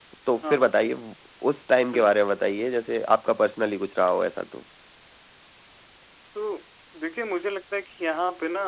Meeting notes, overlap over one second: none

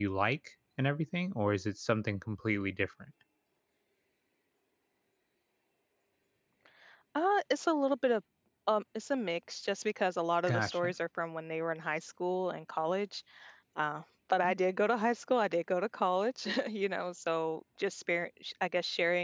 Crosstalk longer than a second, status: none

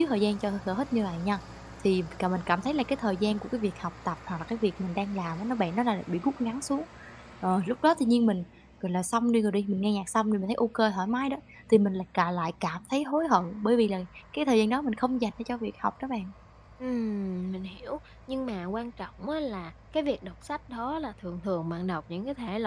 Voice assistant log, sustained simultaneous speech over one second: none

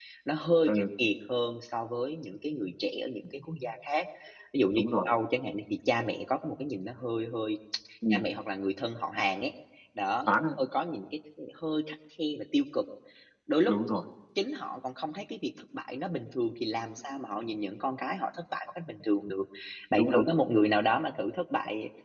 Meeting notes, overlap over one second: none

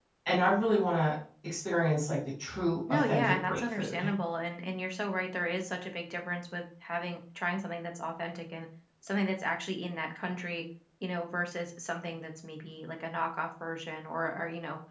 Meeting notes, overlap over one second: present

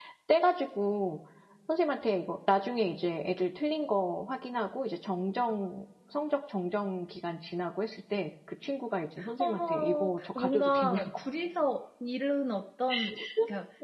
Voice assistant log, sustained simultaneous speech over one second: present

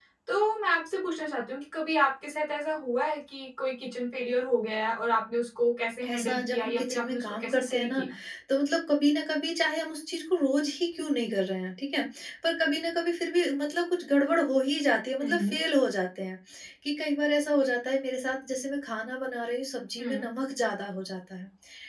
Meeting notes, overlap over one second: present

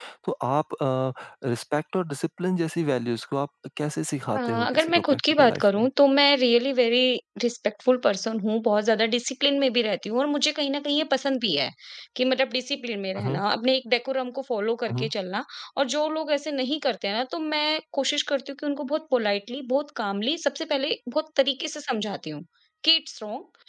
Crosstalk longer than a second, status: present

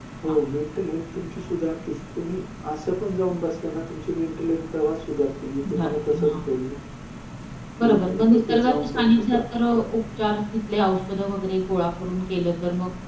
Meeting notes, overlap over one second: present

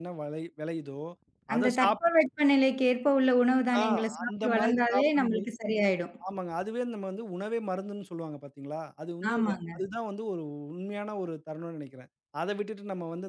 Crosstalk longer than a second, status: present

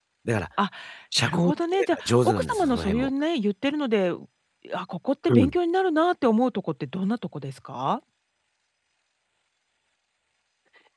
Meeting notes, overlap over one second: present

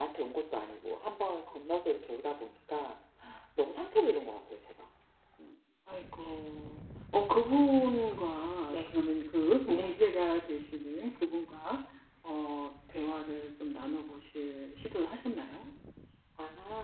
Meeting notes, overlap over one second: none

